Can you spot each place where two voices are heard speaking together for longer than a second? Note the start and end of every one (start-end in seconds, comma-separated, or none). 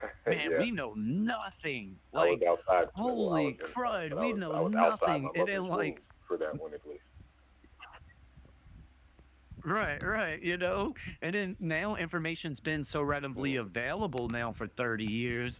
3.0-5.9